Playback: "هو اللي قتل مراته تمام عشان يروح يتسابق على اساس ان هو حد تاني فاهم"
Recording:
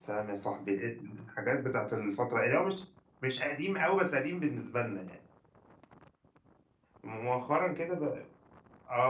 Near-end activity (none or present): present